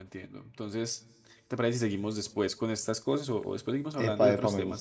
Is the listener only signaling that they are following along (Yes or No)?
No